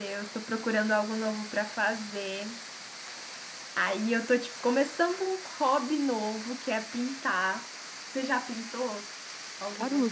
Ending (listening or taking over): taking over